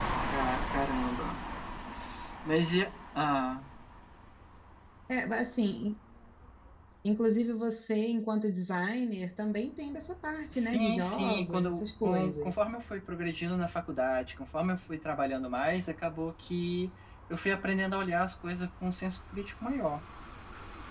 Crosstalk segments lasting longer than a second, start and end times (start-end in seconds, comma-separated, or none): 10.5-12.5